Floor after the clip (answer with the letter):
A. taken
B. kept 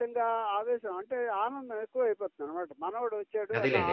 B